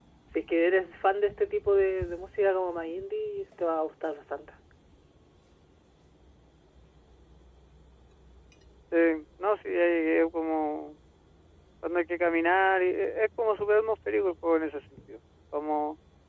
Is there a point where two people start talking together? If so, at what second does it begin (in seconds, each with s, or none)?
none